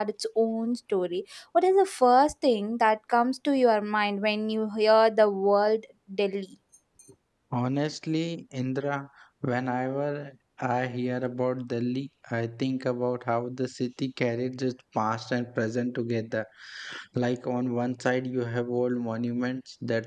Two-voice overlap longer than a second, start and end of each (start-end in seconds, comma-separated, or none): none